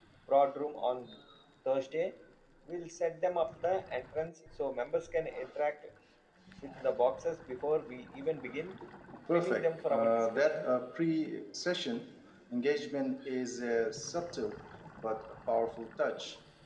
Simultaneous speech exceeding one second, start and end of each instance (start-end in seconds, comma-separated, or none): 9.3-10.7